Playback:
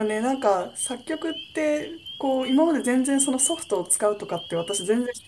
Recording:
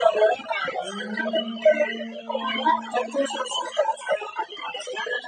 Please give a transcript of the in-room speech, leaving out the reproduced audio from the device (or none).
うーん。